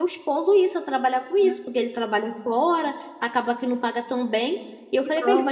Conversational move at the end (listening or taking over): listening